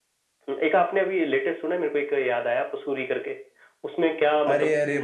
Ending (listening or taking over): taking over